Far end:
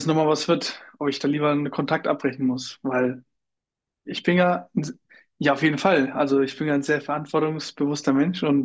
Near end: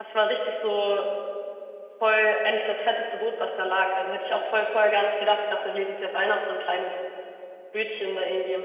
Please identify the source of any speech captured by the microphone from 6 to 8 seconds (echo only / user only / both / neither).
user only